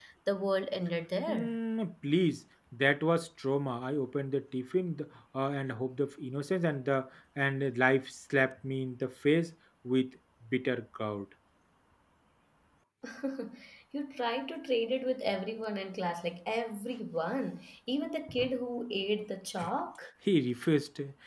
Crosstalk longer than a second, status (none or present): none